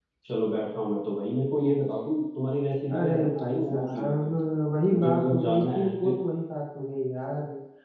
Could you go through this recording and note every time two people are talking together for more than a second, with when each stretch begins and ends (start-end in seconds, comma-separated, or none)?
2.9-4.3, 4.9-6.1